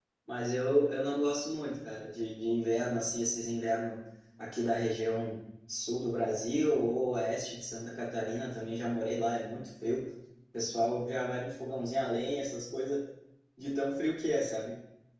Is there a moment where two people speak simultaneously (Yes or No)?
No